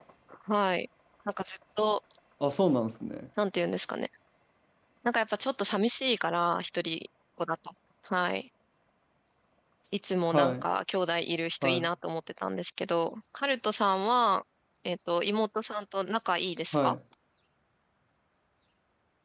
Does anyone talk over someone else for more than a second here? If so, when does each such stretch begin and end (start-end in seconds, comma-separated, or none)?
none